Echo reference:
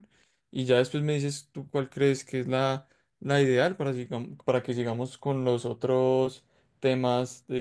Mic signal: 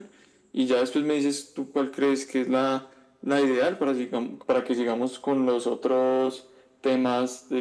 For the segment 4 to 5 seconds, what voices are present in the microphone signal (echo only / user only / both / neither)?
echo only